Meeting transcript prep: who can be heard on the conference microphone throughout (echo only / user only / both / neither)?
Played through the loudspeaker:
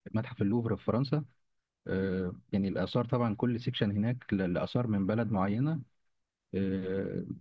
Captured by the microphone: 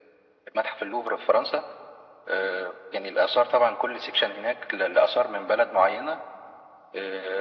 echo only